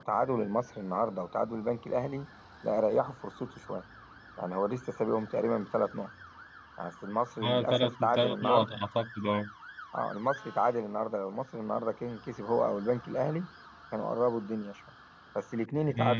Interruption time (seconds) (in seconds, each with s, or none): 7.4 s